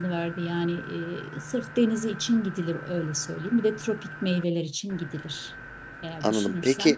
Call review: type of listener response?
taking over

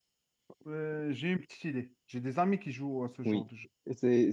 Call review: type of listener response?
taking over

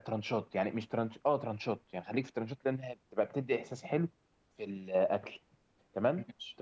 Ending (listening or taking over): listening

